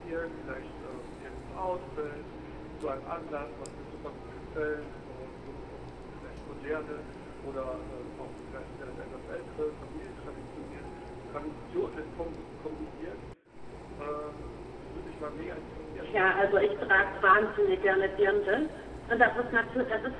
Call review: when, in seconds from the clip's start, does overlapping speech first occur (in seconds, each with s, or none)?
16.0 s